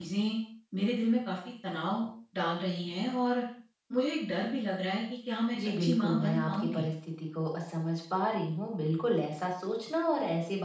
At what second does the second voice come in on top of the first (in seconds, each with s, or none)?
5.5 s